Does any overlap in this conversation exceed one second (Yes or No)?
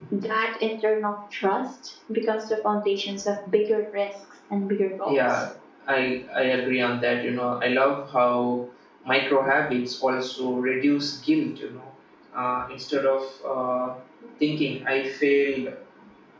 No